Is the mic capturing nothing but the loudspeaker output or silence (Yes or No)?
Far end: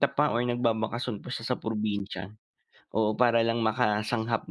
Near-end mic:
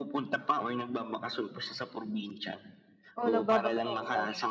No